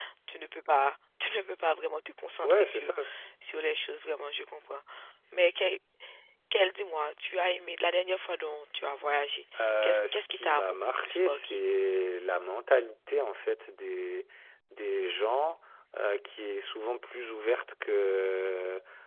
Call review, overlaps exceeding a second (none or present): present